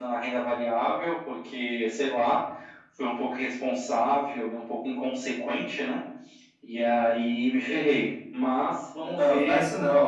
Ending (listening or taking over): taking over